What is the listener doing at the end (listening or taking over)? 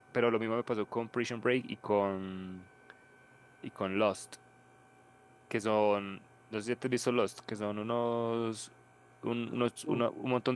listening